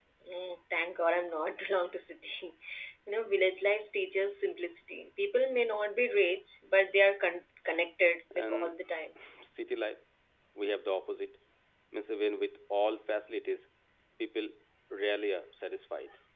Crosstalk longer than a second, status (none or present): none